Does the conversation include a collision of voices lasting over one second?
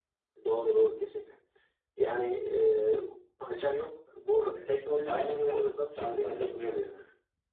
Yes, from 5.1 s

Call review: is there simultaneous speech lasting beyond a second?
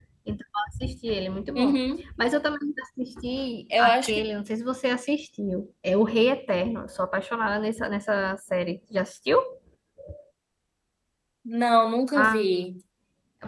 No

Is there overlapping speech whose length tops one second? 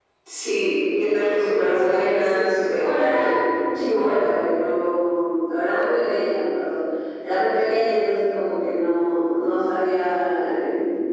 Yes, from 1.0 s

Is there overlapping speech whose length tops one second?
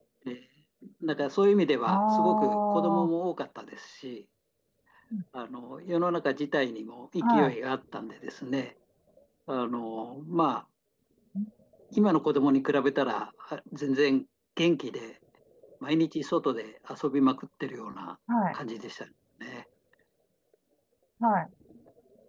Yes, from 1.9 s

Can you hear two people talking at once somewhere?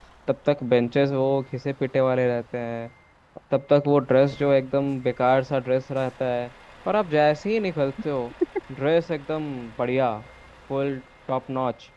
No

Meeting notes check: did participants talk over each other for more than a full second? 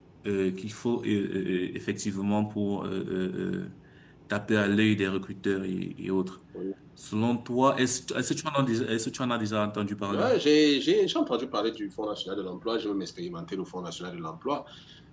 No

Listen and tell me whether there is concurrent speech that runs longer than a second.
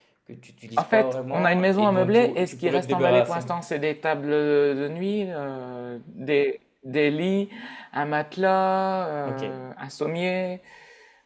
Yes, from 0.8 s

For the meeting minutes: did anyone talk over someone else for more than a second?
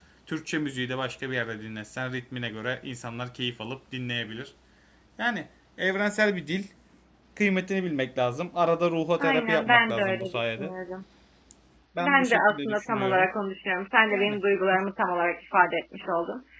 Yes, from 9.2 s

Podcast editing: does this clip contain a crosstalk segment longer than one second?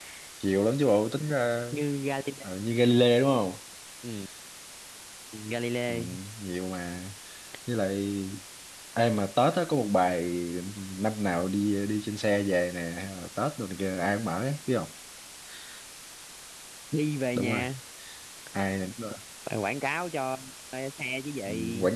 No

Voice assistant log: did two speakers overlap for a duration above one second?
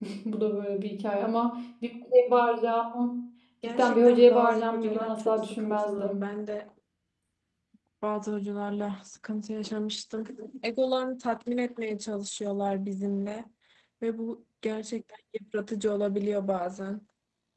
Yes, from 3.6 s

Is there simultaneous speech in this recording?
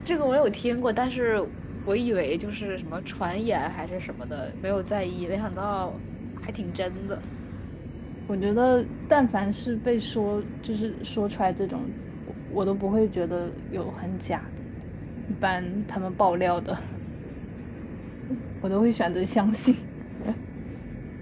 No

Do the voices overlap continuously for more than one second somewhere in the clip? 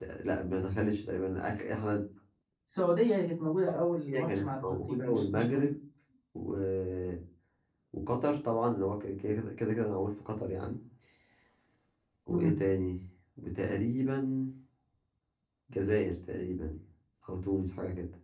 Yes, from 4.1 s

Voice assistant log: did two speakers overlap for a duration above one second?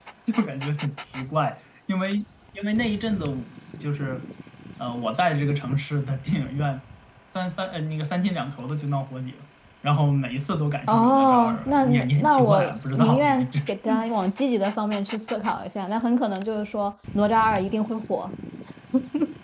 Yes, from 10.9 s

